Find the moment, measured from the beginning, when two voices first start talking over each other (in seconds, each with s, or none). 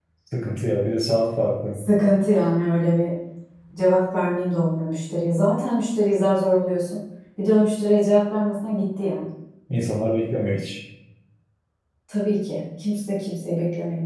none